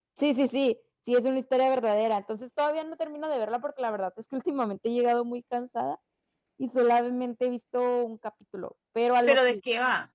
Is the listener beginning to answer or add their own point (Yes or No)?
Yes